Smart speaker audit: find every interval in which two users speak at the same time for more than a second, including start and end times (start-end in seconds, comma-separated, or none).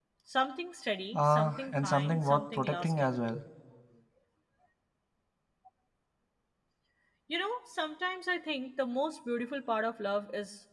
1.1-3.1